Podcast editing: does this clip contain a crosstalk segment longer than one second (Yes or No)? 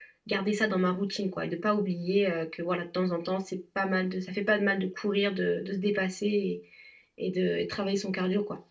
No